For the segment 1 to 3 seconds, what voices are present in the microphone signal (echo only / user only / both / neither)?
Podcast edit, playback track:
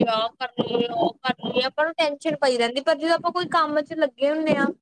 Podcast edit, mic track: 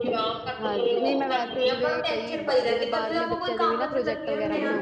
both